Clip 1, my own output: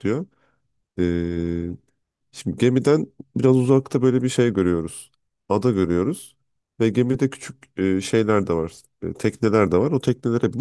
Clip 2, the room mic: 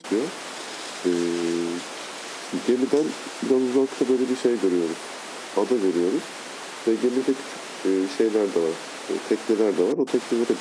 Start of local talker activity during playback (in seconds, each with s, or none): none